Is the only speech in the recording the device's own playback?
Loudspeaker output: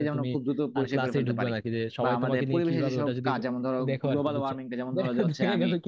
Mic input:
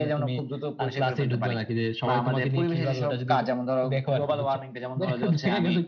Yes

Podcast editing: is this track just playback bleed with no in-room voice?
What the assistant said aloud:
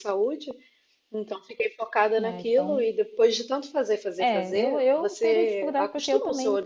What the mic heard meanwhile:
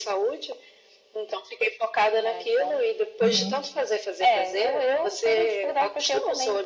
No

